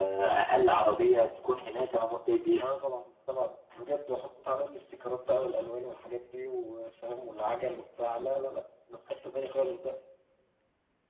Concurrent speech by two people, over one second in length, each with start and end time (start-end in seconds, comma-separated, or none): none